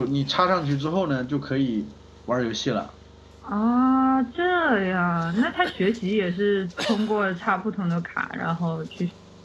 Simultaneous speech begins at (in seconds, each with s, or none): none